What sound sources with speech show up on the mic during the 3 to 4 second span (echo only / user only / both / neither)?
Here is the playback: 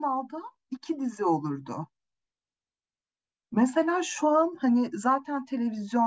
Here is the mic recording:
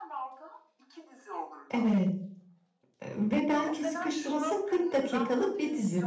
both